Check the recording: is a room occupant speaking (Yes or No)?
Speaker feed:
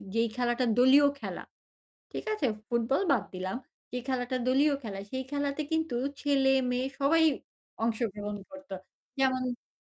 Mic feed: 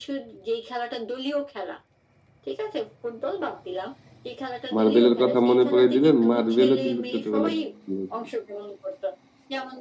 Yes